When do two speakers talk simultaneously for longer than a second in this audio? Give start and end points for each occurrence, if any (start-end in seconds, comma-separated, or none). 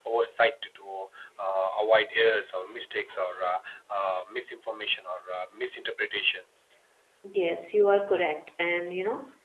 none